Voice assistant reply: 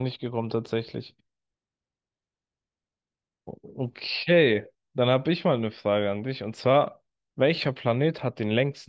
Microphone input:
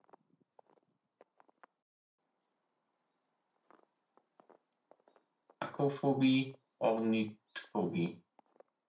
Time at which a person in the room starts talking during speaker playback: 5.6 s

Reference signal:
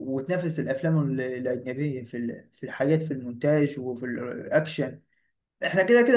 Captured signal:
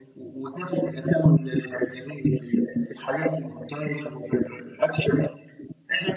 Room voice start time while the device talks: none

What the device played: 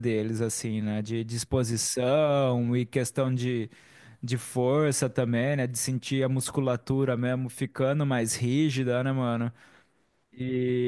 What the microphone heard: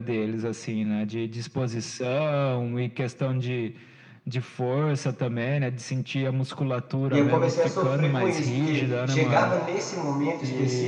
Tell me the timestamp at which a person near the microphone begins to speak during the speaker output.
7.1 s

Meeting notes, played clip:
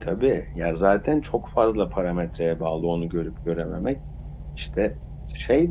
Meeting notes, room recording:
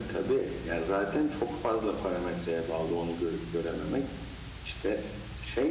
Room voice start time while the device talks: none

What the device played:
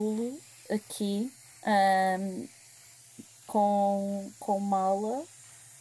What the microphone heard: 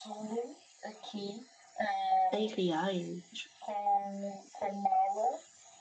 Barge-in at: 2.3 s

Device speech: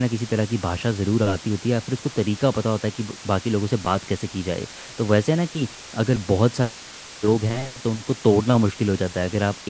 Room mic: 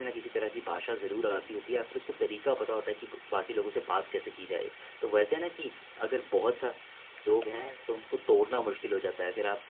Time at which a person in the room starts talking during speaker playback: none

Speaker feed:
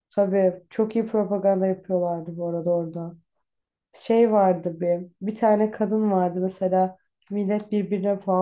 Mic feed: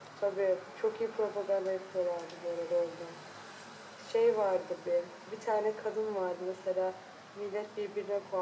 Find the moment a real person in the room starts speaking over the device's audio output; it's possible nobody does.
none

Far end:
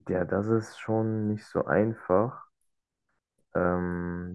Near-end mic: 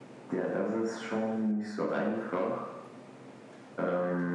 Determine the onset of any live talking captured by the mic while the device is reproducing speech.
none

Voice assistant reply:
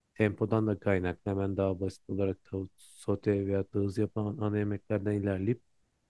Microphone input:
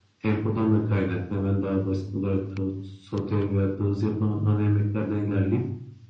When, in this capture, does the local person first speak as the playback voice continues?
none

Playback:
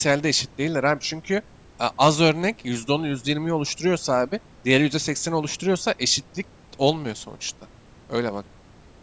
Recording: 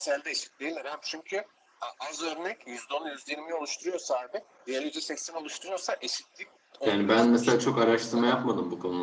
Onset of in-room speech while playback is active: 6.8 s

